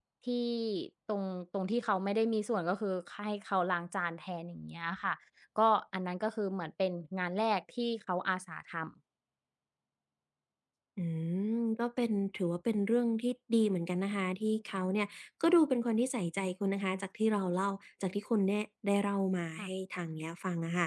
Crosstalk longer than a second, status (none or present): none